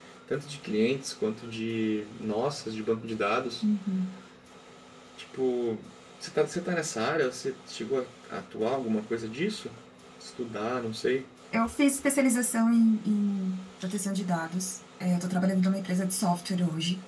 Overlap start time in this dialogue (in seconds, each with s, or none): none